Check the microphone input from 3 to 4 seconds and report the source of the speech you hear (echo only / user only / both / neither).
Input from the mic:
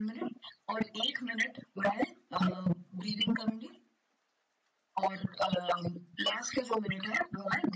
echo only